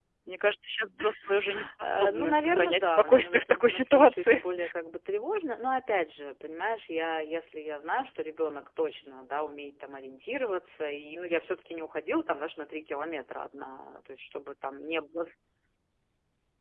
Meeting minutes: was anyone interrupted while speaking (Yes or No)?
Yes